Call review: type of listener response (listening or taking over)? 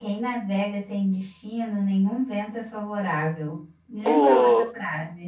taking over